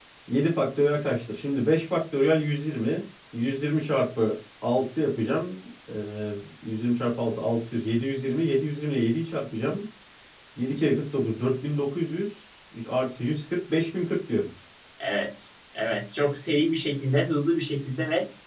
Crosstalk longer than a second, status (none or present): none